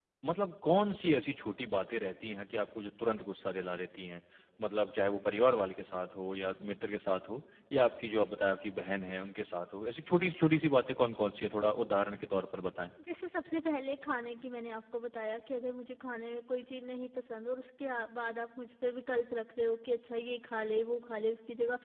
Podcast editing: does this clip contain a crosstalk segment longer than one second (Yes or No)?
No